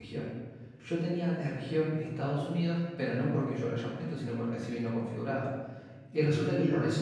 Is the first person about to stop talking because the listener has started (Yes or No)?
No